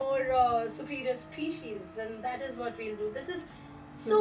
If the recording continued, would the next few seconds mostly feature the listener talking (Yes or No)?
Yes